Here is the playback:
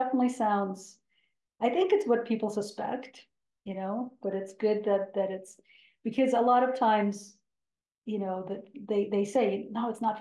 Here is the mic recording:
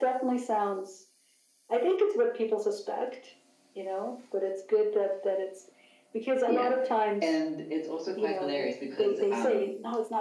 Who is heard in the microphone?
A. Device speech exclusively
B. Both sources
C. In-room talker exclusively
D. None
B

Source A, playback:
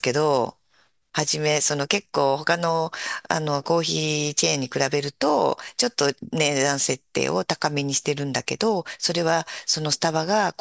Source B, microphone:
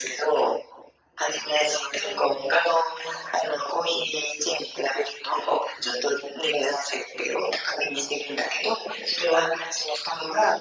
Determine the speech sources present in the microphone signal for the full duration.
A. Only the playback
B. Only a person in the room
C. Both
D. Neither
A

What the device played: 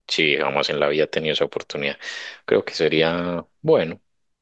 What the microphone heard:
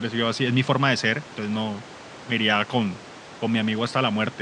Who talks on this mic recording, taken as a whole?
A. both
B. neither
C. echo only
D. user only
D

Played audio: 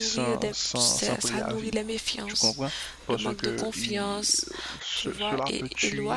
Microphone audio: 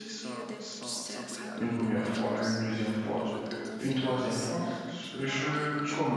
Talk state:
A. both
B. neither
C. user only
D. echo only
A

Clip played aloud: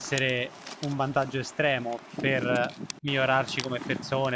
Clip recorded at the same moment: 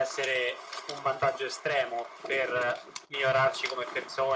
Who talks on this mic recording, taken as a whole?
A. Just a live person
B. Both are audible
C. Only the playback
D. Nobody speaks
C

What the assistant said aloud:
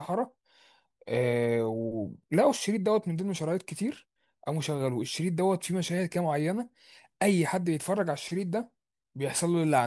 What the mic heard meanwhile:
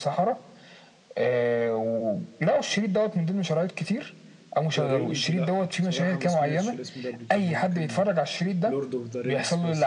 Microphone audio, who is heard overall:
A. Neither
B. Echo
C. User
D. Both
D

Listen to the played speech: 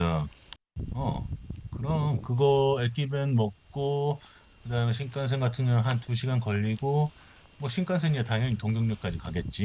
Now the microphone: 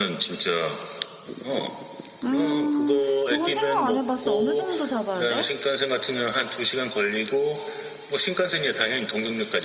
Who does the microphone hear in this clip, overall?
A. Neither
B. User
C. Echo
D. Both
D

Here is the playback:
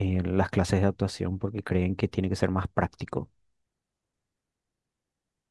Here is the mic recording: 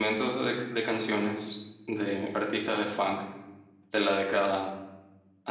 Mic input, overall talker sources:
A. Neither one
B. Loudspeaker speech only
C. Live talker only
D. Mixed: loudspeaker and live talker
C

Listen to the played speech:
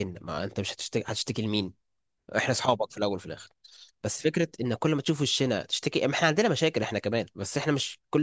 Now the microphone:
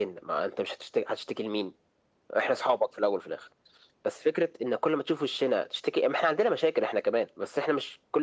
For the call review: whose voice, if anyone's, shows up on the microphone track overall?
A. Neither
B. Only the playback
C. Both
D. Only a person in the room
B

